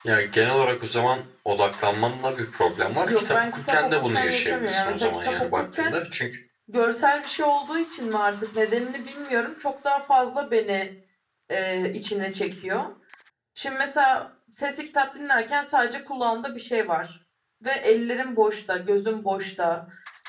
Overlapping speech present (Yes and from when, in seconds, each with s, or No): Yes, from 3.0 s